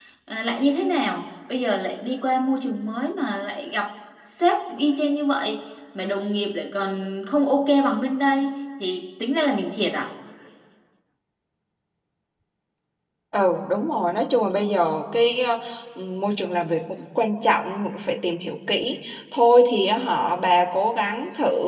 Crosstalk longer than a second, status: none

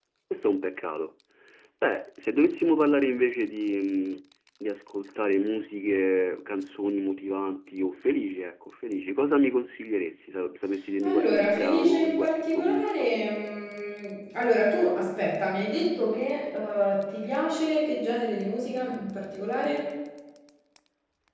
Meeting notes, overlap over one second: present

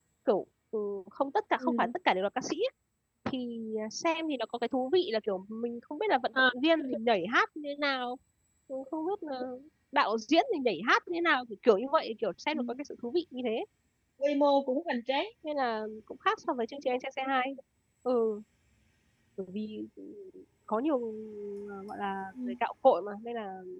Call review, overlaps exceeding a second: none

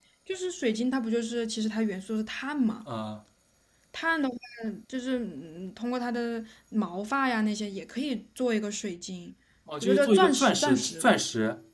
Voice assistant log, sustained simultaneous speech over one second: present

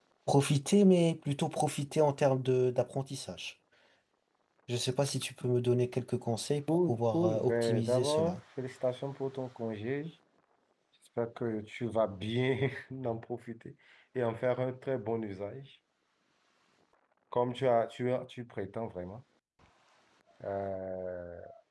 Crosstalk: present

